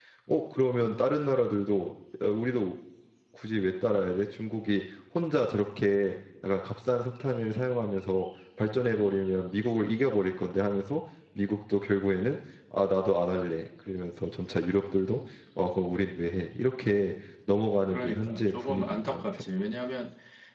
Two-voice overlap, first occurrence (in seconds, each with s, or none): 17.9 s